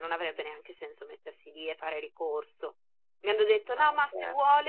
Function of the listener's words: listening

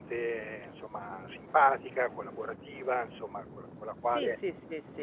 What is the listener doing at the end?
taking over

